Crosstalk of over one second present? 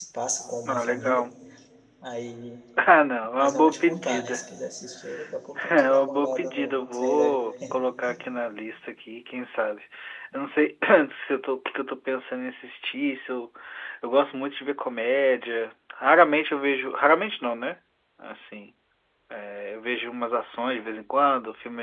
Yes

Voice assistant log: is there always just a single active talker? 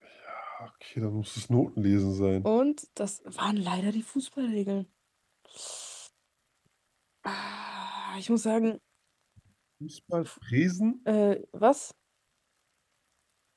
Yes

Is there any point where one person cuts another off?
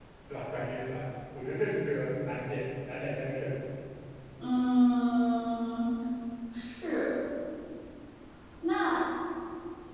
No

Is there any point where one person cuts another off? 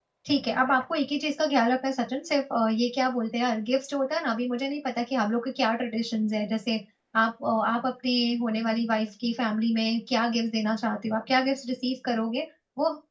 No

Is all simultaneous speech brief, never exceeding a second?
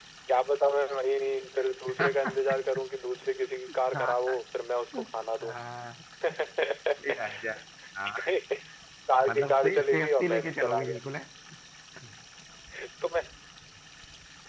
No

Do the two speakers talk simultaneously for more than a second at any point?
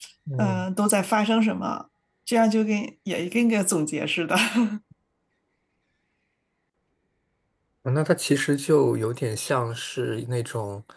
No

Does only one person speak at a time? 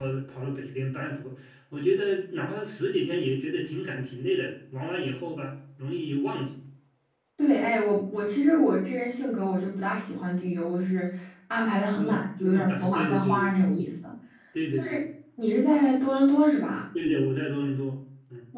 No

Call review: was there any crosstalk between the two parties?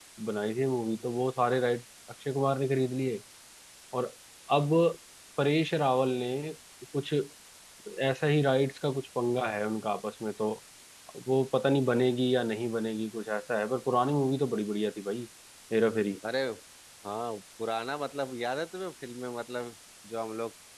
No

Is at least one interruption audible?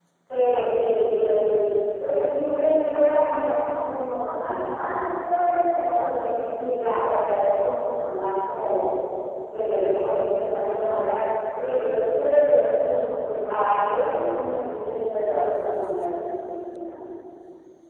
No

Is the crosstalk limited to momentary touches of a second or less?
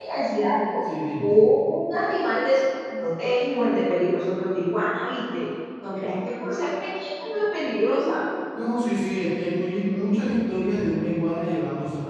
Yes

